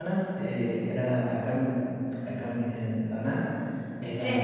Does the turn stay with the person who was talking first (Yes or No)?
Yes